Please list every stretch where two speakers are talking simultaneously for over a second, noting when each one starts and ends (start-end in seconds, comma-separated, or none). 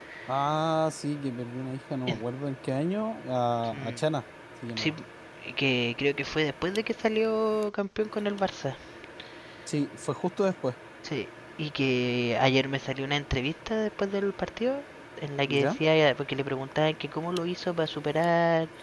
none